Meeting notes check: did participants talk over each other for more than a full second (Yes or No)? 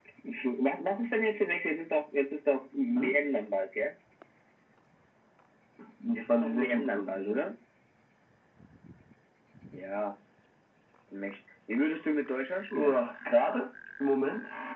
Yes